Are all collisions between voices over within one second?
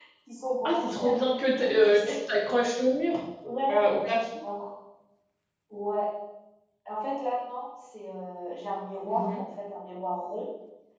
No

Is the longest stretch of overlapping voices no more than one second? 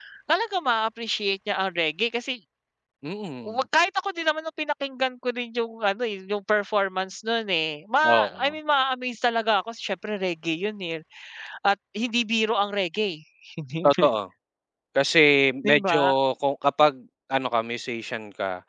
Yes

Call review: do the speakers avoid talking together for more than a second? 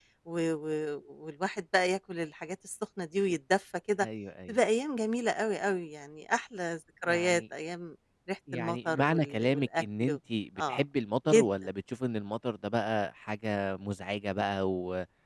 No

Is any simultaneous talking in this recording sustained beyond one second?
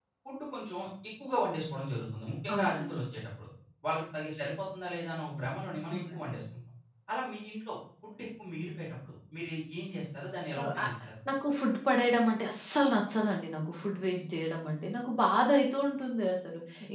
No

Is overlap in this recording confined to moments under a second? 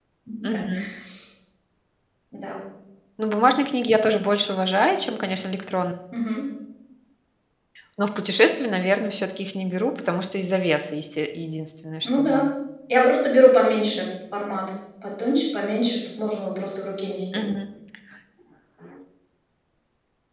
Yes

